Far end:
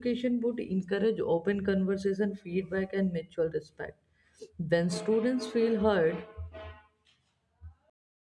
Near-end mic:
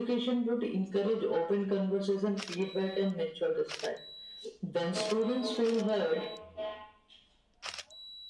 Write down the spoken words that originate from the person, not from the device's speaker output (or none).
none